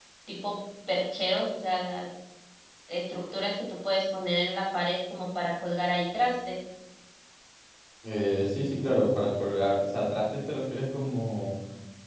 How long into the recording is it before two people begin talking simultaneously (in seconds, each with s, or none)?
none